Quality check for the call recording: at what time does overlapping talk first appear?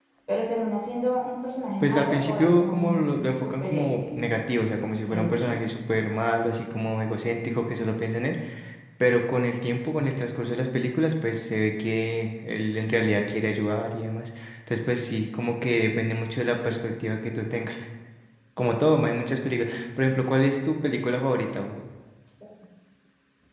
1.8 s

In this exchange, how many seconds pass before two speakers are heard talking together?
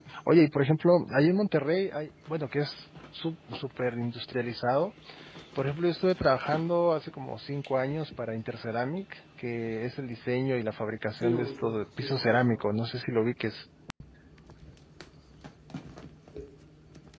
11.2 s

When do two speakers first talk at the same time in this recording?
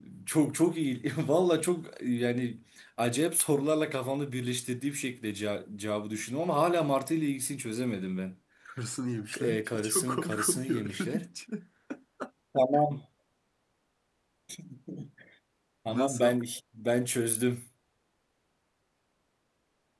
9.3 s

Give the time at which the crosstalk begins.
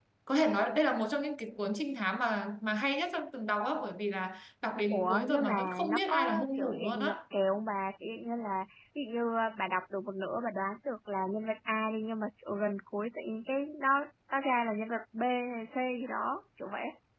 4.9 s

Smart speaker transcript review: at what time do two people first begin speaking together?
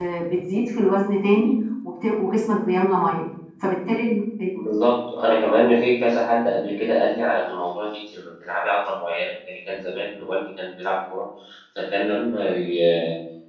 none

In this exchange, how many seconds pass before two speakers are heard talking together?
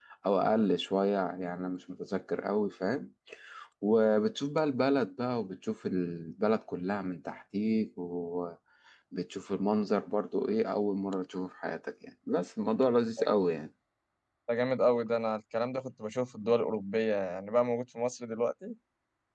none

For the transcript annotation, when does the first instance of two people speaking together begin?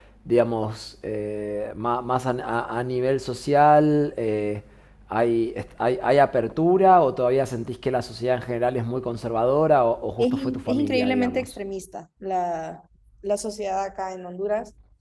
10.2 s

